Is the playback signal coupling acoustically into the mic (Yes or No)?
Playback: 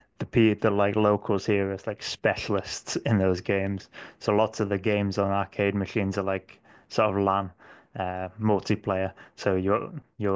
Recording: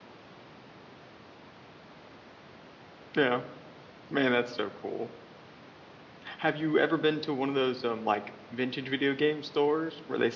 No